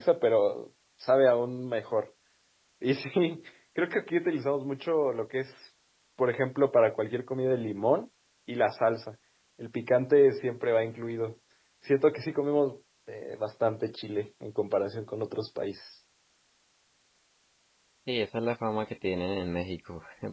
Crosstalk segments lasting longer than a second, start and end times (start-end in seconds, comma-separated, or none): none